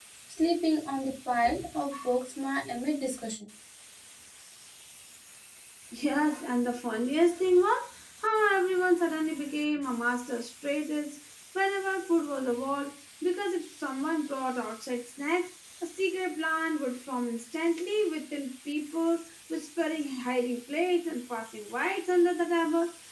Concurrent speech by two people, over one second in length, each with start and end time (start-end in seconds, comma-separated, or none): none